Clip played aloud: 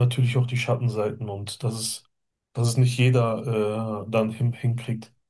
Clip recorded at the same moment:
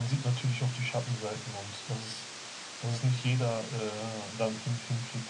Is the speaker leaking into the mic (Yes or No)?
Yes